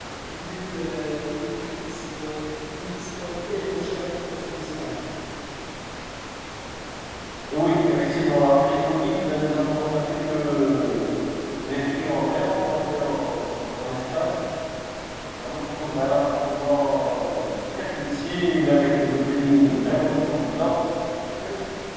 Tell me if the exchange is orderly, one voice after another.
Yes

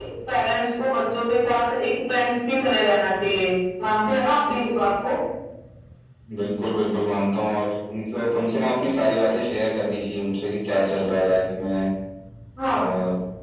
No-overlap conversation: Yes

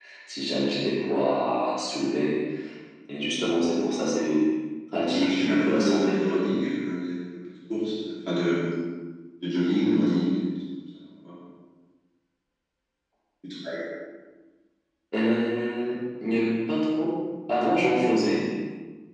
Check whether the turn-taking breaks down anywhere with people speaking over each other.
Yes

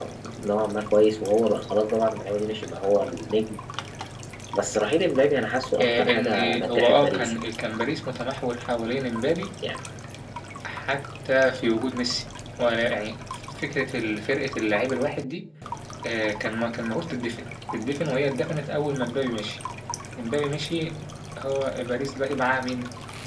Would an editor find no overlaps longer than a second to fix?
No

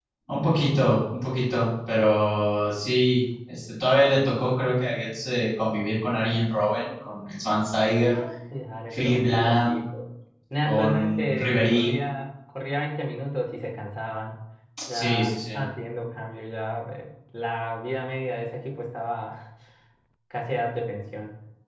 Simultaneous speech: Yes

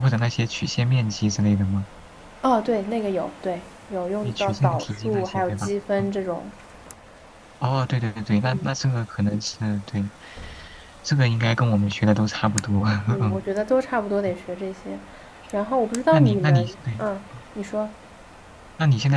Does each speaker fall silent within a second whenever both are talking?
No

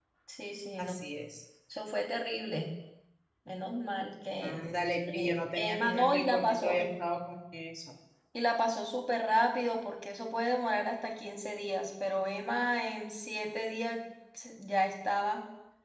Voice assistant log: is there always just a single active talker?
No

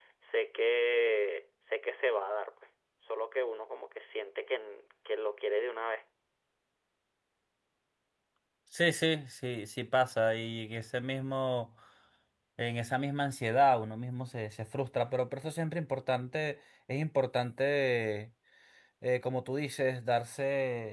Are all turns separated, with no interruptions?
Yes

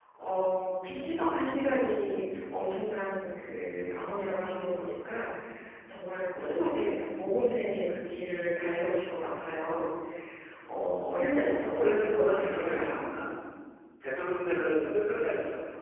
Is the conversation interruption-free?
No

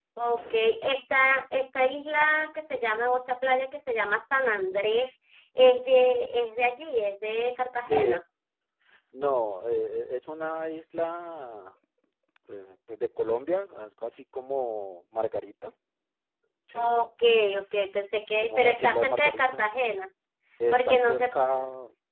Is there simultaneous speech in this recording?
Yes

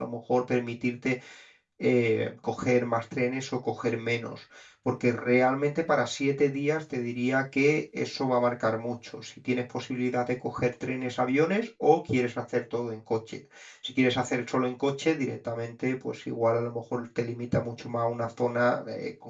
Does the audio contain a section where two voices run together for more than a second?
No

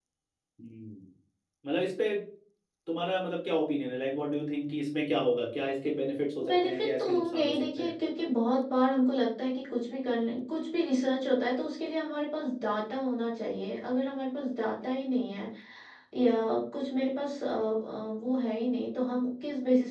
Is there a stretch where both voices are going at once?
Yes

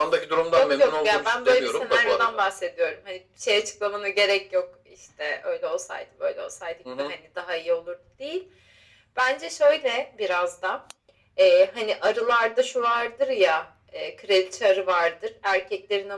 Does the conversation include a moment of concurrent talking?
Yes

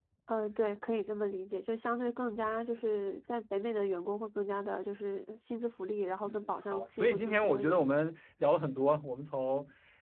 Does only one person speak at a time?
No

